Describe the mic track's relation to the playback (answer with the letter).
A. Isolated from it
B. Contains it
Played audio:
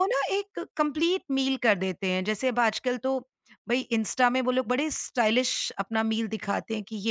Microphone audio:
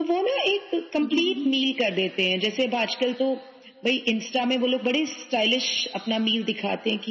B